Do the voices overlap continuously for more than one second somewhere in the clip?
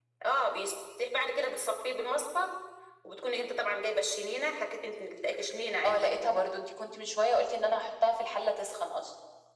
No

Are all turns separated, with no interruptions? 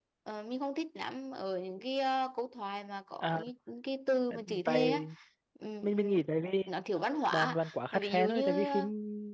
No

